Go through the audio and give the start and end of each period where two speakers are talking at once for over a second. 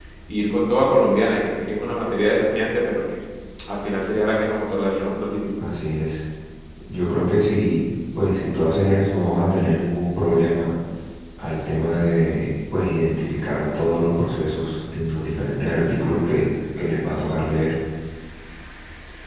none

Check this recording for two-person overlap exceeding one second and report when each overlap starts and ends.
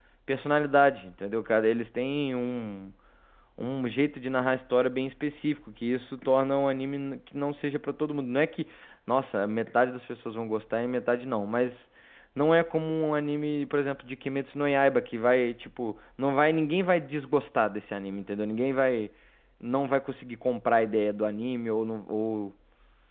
none

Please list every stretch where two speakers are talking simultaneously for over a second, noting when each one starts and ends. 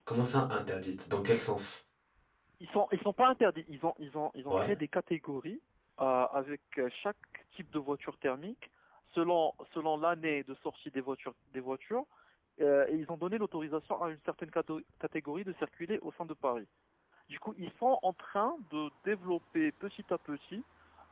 none

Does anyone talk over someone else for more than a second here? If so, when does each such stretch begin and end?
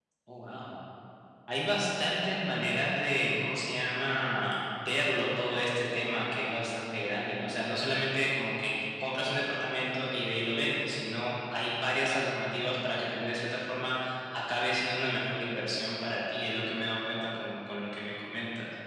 none

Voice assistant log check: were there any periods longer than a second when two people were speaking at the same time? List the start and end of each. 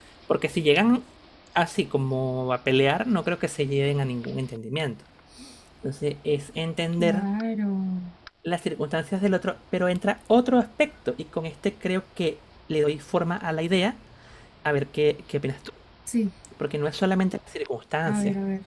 none

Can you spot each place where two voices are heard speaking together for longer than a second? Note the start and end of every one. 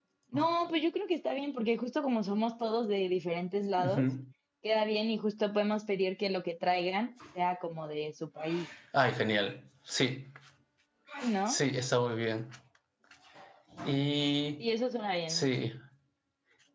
none

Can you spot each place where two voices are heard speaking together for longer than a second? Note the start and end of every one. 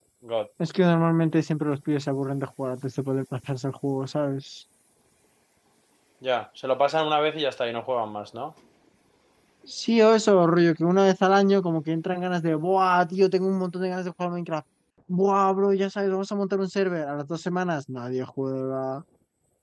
none

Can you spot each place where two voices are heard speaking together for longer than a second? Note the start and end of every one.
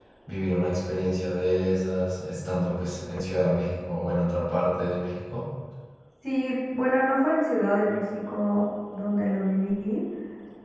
none

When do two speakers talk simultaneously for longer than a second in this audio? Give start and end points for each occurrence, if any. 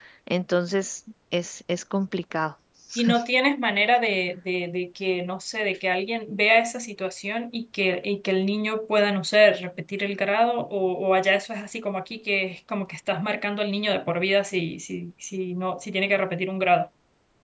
none

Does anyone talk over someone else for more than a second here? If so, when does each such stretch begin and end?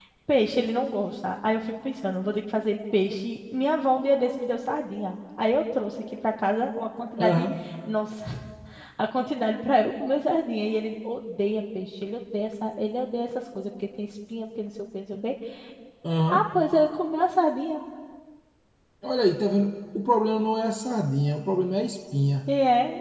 none

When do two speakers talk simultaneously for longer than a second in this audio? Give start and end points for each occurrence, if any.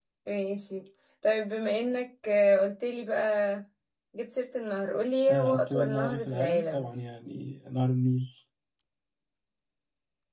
5.3-6.9

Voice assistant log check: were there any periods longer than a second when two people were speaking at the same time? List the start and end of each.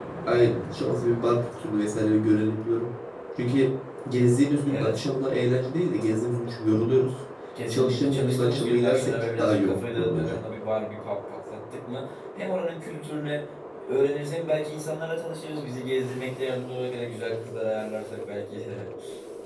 7.7-10.4

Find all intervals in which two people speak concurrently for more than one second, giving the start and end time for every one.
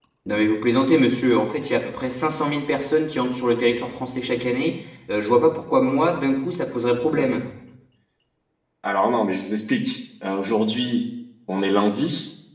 none

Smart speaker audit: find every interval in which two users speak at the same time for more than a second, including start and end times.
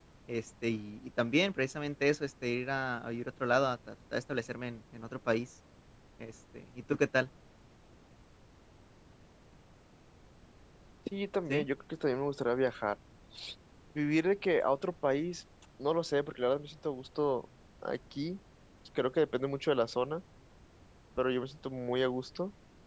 none

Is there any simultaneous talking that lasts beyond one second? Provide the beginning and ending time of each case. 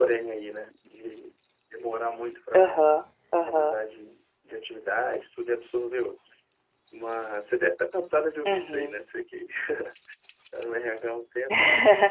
none

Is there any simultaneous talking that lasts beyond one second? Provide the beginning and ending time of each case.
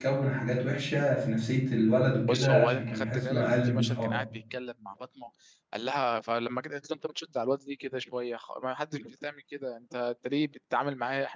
2.3-4.2

